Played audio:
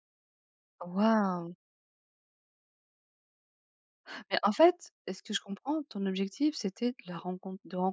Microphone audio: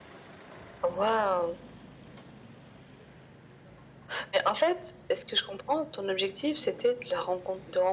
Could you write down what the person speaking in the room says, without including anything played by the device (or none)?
none